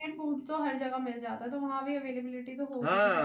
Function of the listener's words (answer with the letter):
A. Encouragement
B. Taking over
B